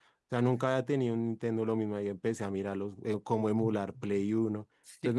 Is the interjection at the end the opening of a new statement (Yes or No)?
Yes